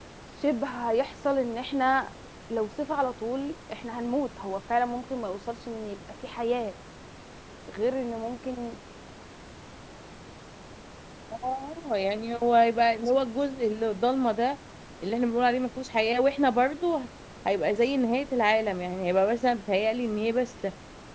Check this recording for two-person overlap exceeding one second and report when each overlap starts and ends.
none

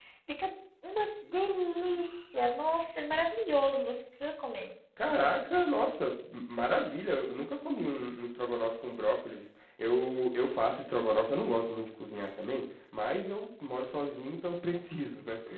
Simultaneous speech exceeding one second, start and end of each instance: none

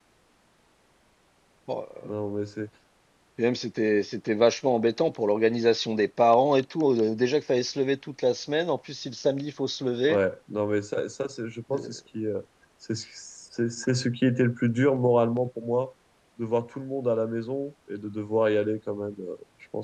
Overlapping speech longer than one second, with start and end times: none

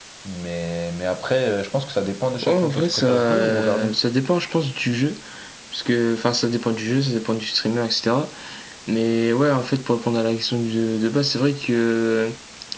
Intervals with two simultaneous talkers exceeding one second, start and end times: 2.5-3.9

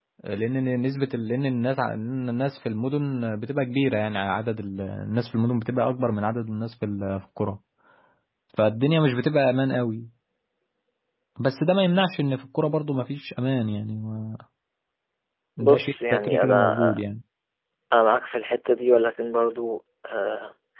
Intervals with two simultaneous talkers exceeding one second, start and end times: 15.6-17.0

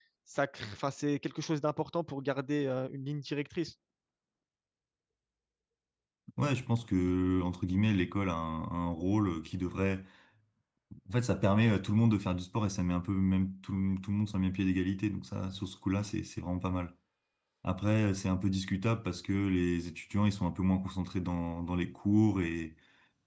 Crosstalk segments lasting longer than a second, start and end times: none

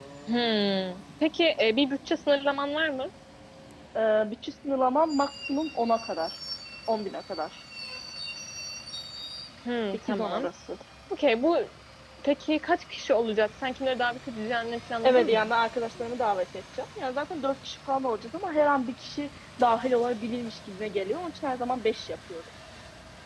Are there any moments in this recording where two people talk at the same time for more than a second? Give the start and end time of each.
none

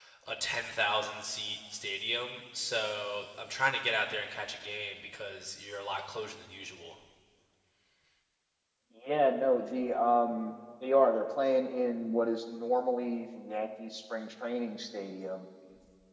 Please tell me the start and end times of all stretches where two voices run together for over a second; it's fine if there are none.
none

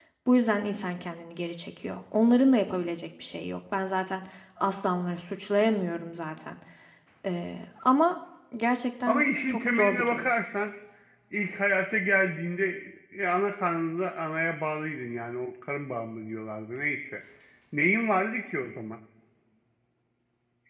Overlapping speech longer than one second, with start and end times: 9.1-10.3

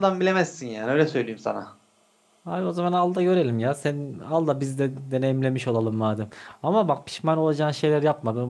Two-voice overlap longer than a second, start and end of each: none

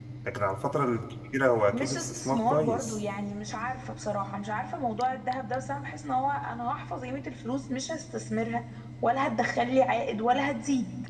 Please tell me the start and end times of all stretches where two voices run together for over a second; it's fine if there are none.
1.7-3.0

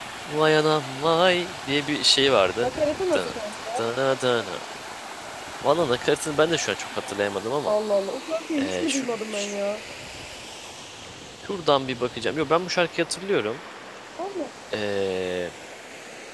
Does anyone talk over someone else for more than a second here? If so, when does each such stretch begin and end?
none

